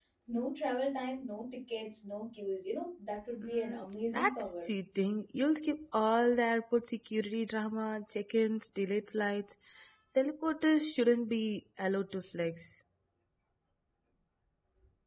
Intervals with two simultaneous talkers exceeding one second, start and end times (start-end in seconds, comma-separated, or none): 3.4-4.7